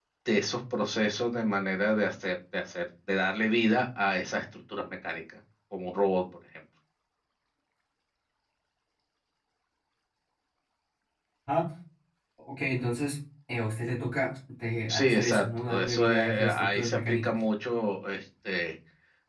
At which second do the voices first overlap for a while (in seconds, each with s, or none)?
14.9 s